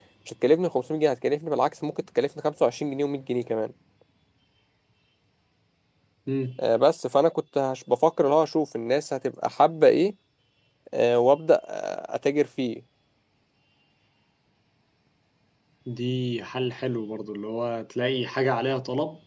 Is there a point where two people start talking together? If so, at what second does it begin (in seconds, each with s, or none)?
none